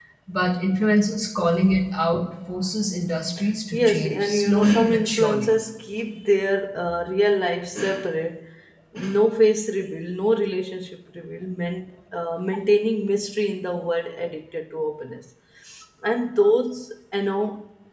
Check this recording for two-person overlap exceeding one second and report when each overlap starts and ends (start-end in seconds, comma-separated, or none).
3.7-5.5